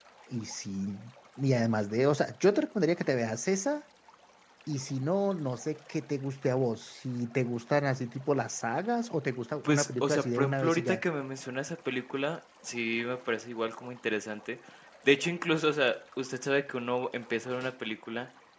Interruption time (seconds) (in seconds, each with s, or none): 9.6 s